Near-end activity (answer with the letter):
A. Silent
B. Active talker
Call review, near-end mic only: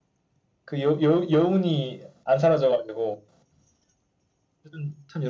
A